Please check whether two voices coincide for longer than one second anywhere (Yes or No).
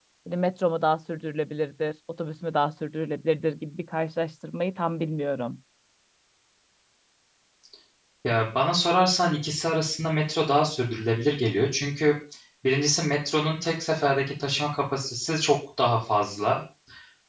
No